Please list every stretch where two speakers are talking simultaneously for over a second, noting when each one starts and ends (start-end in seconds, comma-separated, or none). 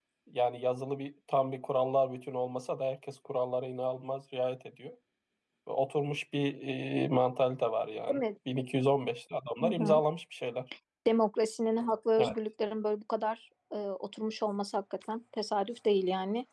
none